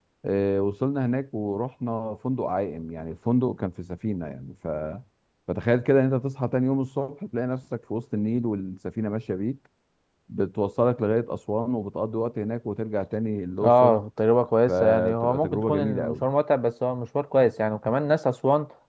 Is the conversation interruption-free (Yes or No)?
No